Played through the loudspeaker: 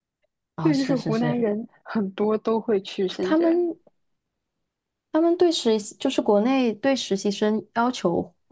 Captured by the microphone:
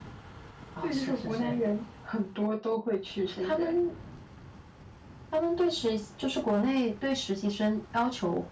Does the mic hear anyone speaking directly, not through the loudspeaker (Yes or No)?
No